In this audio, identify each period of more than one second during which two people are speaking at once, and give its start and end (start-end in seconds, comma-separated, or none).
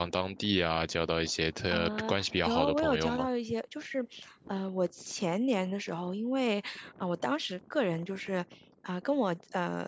1.7-3.3